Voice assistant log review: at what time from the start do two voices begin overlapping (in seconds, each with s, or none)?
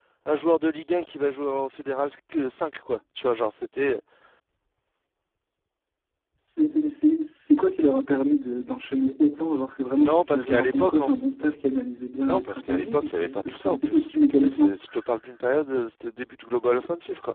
9.9 s